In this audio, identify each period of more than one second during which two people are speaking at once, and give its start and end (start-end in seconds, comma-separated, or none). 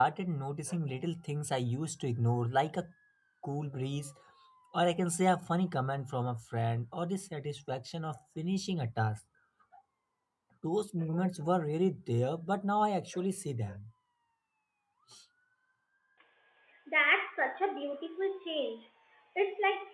none